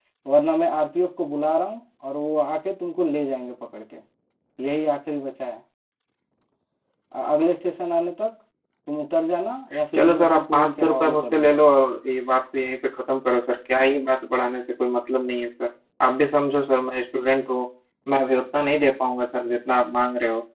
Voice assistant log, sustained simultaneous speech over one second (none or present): present